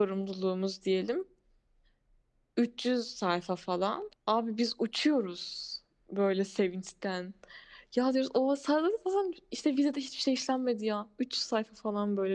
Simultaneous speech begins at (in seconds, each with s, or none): none